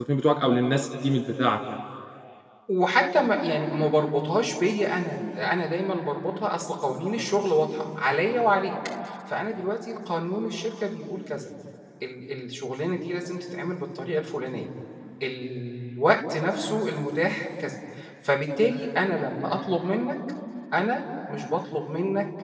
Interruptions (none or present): none